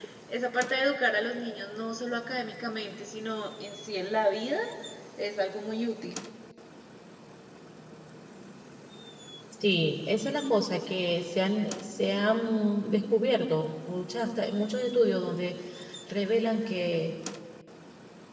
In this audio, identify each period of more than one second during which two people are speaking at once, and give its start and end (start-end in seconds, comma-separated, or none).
none